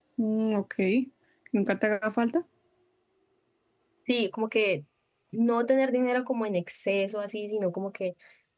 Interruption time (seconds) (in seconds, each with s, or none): none